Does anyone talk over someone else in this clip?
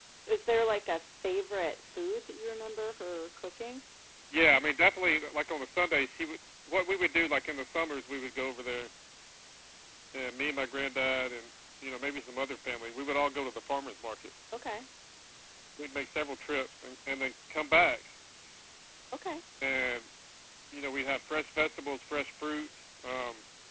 No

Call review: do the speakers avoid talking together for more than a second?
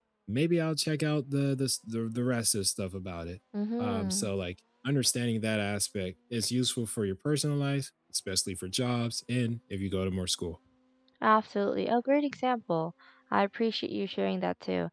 Yes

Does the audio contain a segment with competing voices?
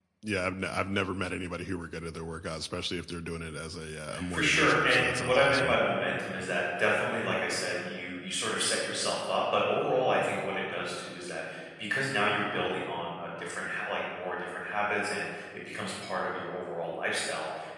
Yes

